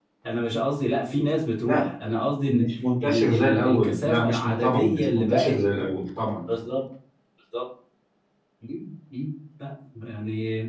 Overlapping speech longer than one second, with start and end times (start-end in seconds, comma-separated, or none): 3.0-5.6